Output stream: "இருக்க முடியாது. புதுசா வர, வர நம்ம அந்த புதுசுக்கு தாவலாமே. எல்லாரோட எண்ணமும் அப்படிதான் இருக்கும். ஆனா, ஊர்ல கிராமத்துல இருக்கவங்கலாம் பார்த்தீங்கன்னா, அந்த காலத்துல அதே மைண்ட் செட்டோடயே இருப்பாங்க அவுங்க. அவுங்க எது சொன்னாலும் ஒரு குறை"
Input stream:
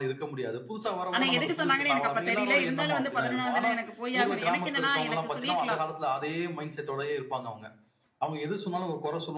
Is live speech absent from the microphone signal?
No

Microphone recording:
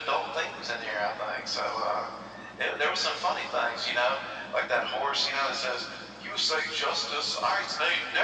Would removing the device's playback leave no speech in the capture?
Yes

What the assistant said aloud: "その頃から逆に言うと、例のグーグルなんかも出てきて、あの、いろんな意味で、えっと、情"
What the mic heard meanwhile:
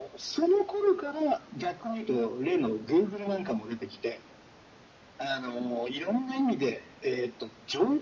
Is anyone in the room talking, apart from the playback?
No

